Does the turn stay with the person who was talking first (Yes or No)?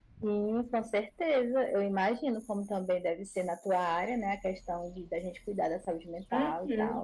No